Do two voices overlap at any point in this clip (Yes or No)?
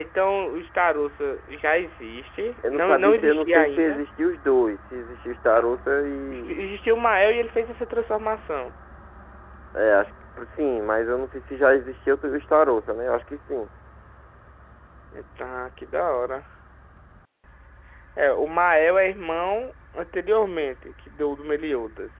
Yes